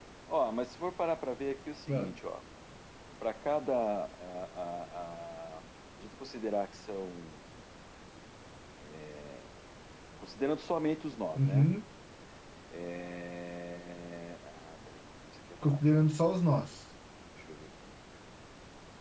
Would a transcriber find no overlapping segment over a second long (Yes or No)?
Yes